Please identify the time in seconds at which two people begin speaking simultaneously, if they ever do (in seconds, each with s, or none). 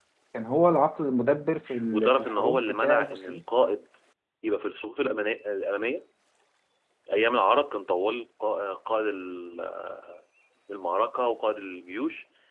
1.9 s